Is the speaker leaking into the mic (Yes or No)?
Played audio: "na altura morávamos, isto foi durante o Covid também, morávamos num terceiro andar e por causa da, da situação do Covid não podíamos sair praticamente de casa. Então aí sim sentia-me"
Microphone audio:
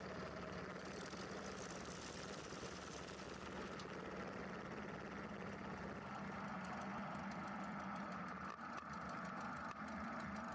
No